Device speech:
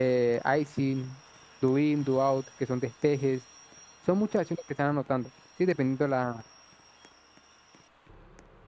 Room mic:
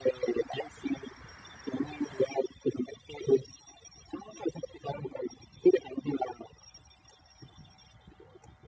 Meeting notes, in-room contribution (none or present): none